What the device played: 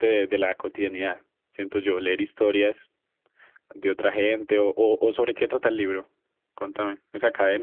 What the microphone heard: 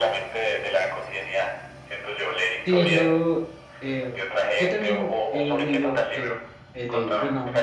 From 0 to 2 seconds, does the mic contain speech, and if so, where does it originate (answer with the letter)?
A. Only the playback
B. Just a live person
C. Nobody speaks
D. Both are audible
A